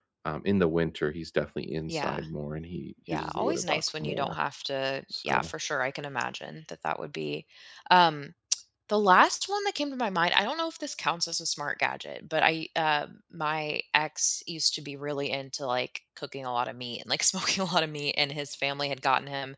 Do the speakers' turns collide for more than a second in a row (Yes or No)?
Yes